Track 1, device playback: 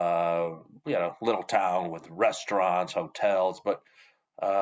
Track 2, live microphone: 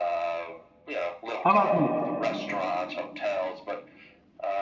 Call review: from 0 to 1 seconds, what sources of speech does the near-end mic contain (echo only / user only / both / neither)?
echo only